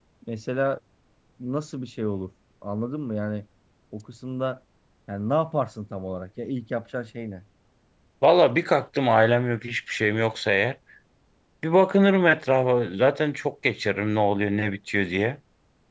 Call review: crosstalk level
none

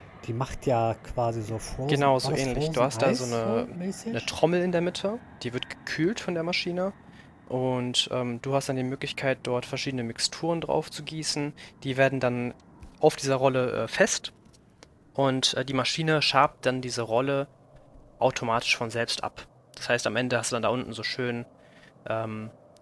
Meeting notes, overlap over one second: present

